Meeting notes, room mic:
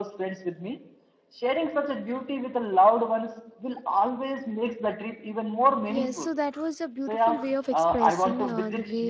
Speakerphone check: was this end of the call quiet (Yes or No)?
No